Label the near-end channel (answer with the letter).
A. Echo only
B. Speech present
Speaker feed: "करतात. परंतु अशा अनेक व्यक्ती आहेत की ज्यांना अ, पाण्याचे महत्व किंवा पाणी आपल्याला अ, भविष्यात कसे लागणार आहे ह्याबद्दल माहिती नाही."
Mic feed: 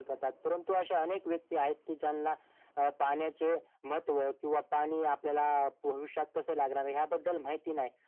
A